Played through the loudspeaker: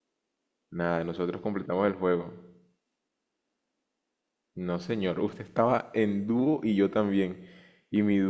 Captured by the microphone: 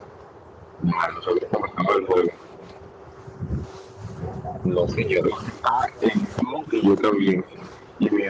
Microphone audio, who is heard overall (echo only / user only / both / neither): echo only